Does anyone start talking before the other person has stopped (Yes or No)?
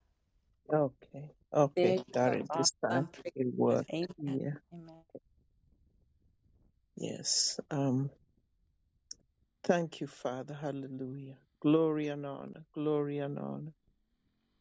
Yes